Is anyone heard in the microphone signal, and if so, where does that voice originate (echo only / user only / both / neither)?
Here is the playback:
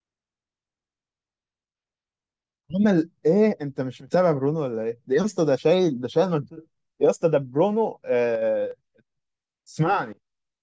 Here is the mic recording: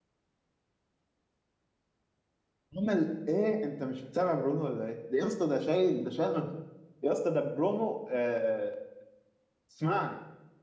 echo only